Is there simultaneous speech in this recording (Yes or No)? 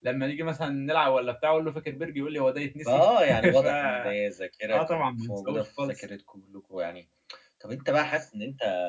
Yes